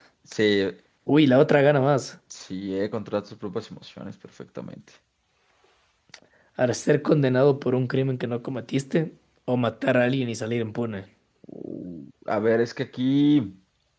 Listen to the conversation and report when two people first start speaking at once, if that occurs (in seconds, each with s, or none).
none